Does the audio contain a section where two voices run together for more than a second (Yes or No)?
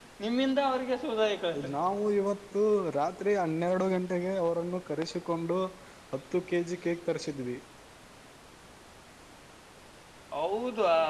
No